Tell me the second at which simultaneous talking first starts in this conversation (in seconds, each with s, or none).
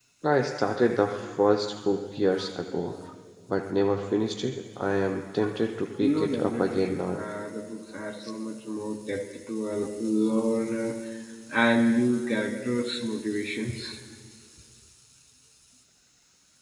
6.0 s